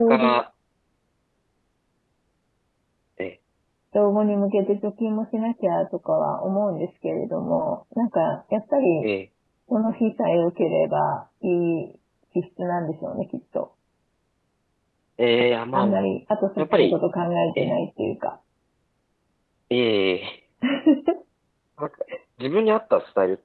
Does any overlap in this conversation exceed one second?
No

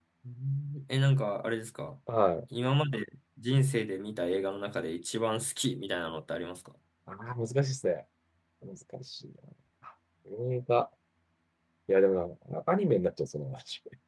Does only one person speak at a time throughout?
Yes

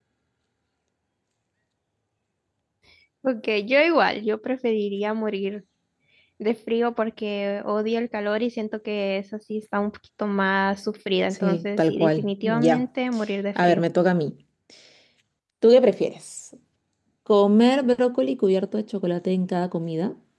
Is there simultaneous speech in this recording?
Yes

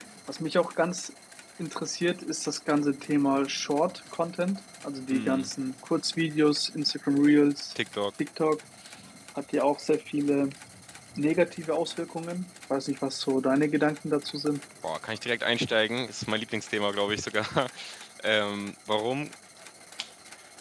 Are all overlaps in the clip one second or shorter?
Yes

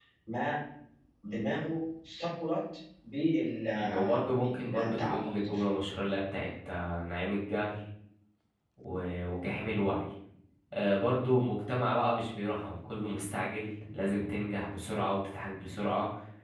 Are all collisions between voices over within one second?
No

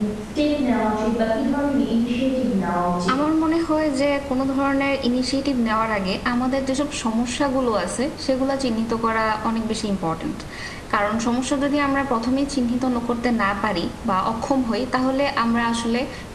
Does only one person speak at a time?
Yes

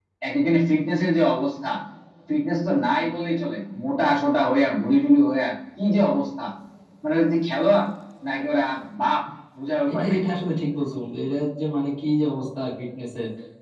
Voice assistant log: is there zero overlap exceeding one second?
Yes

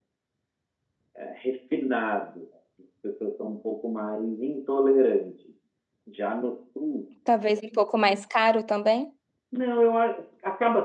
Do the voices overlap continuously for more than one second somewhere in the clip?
No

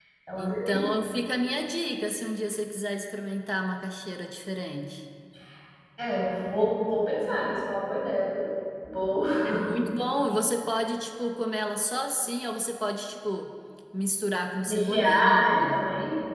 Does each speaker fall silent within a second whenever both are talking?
No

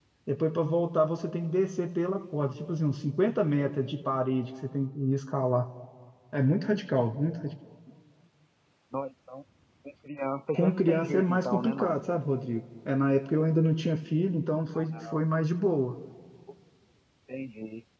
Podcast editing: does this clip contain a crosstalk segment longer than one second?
Yes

